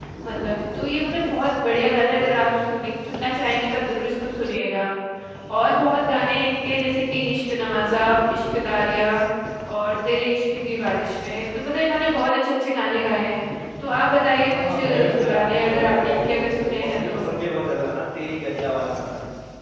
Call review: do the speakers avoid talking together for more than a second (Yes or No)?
No